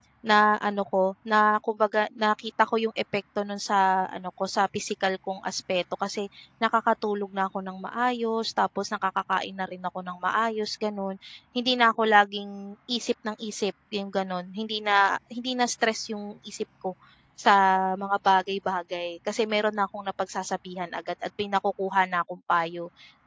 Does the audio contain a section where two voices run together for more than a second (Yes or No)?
No